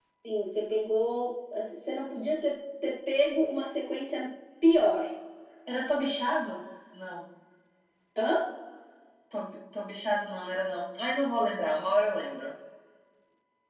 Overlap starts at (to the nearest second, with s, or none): none